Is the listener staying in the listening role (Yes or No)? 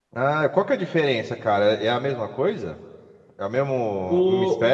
No